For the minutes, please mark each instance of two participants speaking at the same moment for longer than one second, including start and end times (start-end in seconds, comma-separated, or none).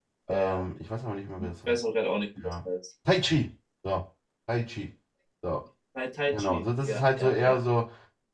6.3-7.6